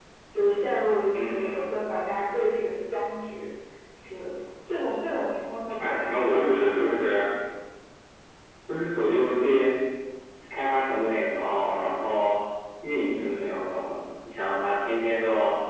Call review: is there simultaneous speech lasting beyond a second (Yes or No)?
Yes